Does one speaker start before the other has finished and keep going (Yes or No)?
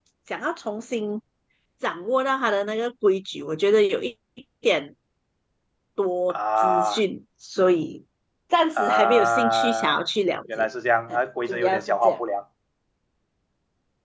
Yes